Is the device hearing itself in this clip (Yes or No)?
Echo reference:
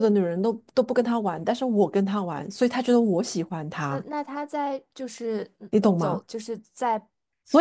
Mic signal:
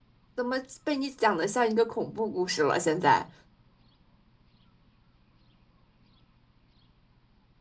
No